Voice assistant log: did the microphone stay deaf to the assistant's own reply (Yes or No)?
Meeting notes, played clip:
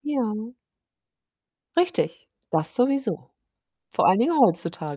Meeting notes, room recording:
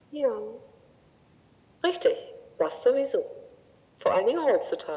No